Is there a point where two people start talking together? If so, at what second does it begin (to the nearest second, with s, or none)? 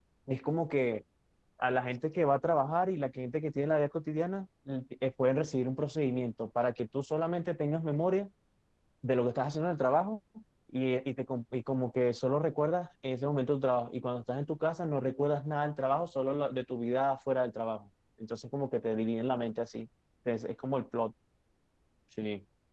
none